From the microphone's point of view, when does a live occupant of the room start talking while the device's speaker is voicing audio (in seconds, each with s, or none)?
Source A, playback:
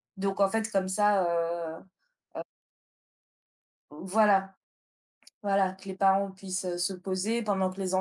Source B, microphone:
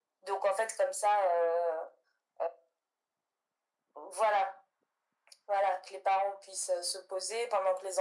none